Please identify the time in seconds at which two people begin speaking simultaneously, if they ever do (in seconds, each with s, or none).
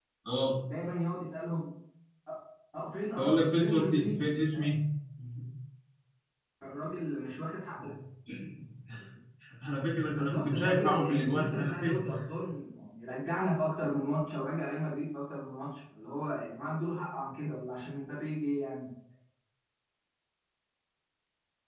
3.2 s